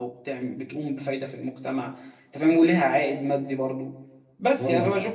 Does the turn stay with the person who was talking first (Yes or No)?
Yes